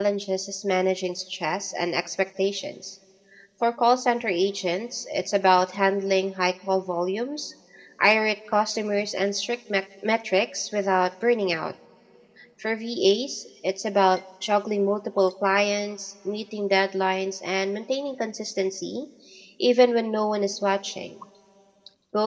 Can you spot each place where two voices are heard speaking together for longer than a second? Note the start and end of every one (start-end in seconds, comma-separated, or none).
none